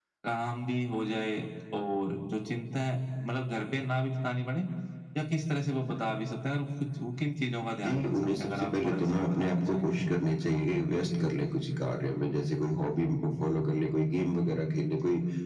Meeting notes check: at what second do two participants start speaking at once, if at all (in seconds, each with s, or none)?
7.8 s